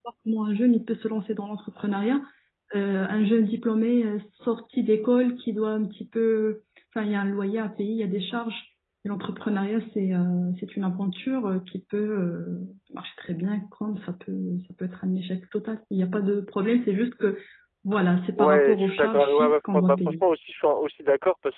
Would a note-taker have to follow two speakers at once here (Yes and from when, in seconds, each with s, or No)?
Yes, from 18.4 s